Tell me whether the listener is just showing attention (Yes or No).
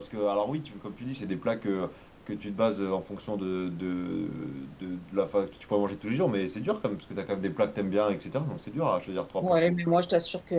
No